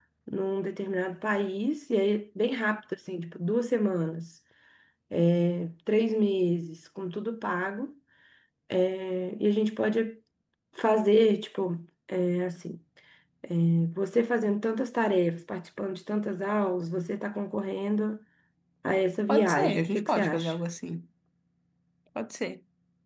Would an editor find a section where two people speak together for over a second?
Yes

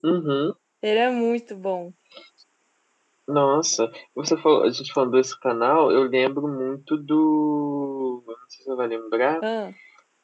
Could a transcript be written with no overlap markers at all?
Yes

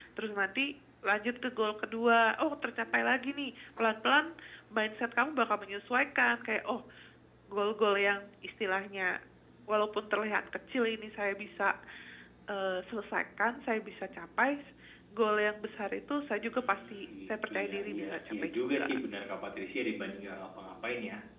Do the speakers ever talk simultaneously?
Yes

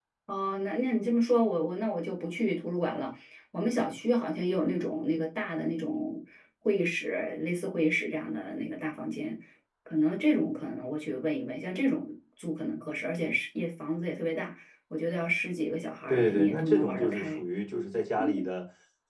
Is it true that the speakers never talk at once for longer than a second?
No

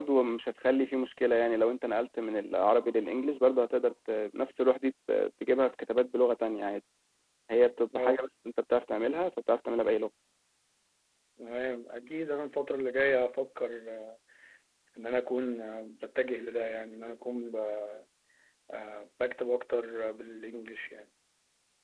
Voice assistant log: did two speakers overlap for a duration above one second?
No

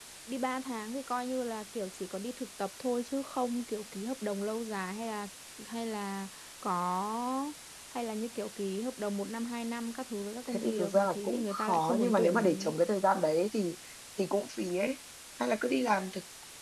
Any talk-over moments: Yes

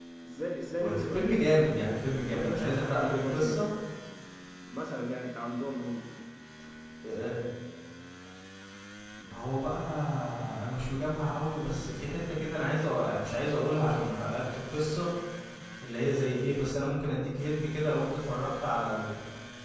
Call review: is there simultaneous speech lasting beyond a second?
Yes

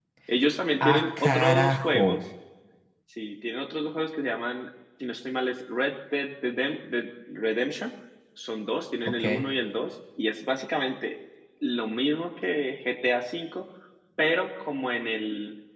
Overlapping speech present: Yes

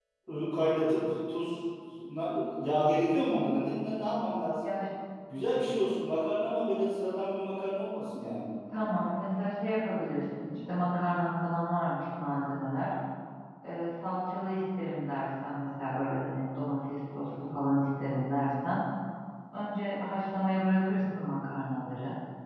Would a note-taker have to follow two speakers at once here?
No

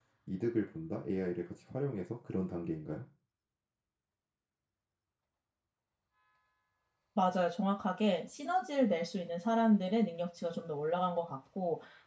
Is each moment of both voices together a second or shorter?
Yes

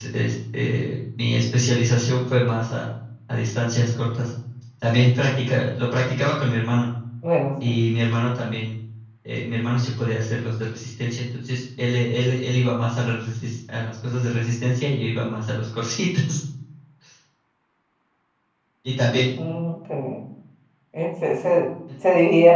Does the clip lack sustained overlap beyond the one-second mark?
Yes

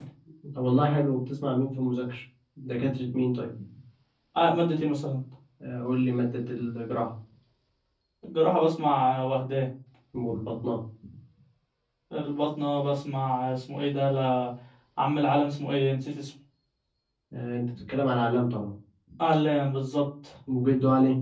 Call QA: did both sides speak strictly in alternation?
Yes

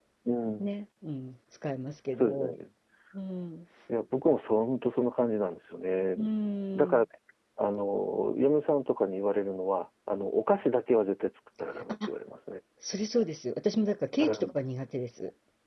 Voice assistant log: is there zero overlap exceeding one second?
Yes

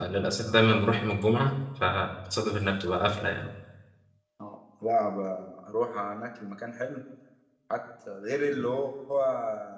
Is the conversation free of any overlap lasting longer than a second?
Yes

